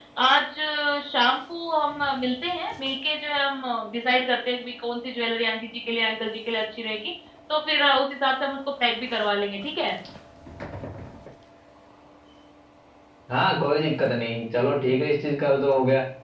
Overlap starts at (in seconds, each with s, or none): none